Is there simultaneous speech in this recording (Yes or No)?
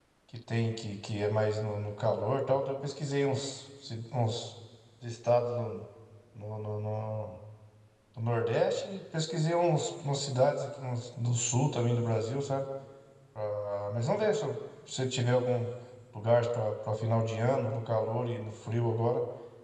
No